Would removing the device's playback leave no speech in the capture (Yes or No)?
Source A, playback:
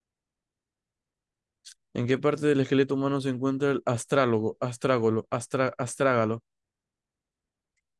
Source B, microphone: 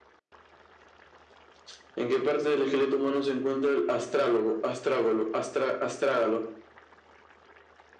Yes